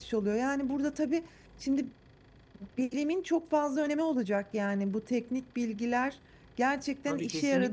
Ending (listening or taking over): taking over